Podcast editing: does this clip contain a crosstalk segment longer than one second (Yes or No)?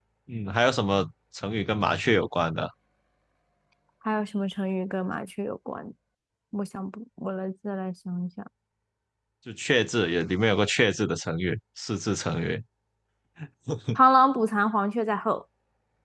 No